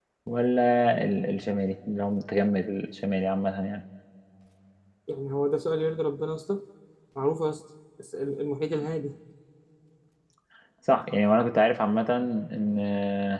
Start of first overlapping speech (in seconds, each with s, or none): none